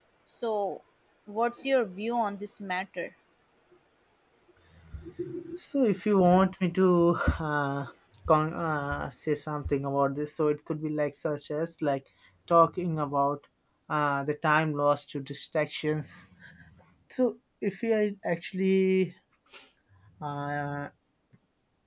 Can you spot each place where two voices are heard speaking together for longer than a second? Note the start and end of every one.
none

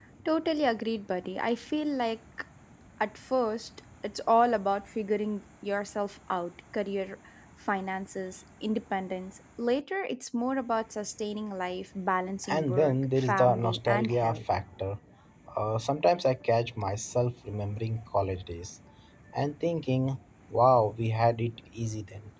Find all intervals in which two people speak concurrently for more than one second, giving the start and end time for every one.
12.5-14.4

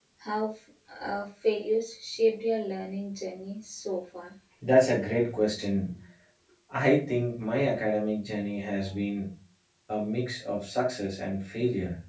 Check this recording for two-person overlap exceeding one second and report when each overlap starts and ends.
none

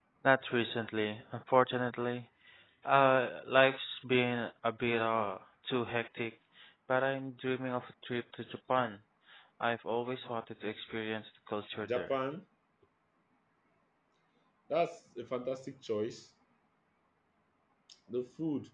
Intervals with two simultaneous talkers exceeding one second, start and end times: none

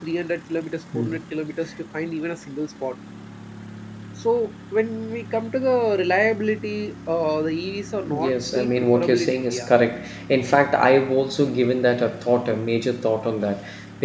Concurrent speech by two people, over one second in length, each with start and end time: 8.2-9.7

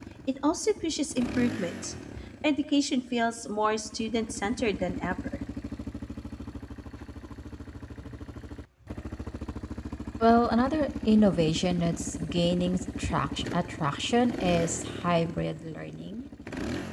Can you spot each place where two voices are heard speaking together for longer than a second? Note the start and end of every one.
none

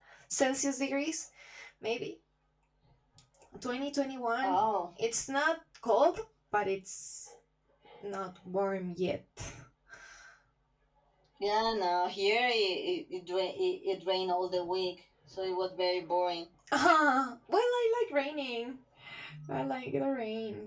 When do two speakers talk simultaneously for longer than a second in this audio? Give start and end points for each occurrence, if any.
none

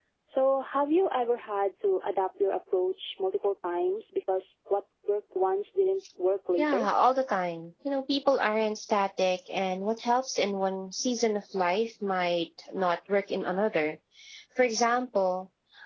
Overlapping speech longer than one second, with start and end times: none

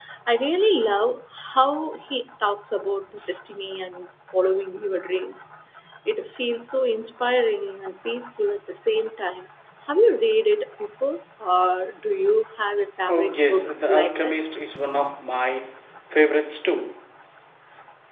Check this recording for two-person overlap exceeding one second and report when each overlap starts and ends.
13.1-14.3

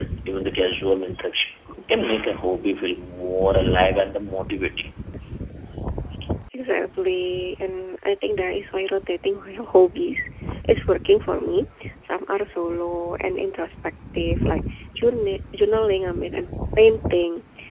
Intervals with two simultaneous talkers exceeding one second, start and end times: none

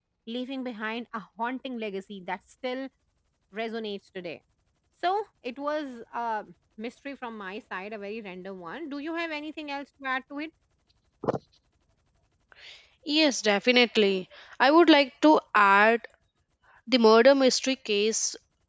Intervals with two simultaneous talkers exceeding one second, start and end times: none

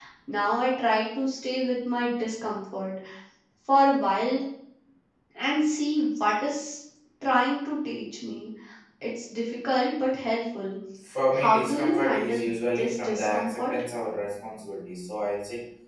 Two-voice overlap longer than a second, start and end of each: 11.3-13.7

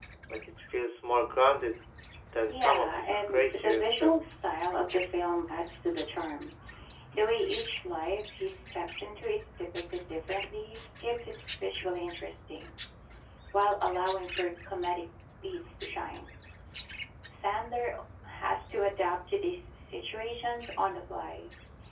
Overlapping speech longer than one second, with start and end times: 2.5-4.2

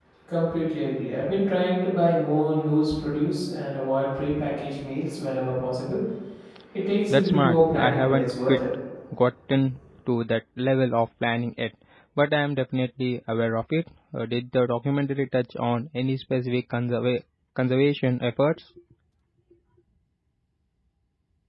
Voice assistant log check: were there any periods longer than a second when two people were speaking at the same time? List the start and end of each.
7.1-8.6

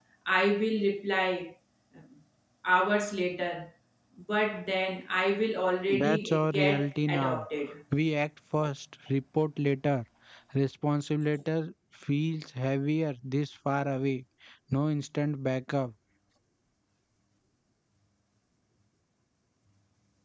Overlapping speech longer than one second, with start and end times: 6.0-7.4

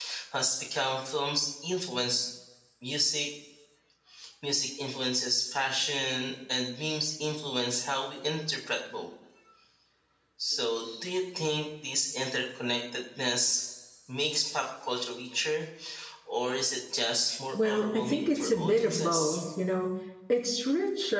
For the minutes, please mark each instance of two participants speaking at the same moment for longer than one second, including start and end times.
17.5-19.4

